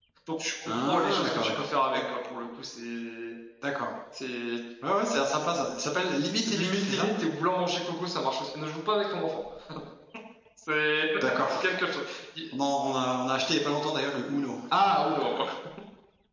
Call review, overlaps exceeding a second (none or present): present